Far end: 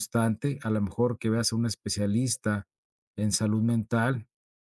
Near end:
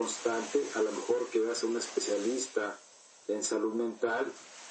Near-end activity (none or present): none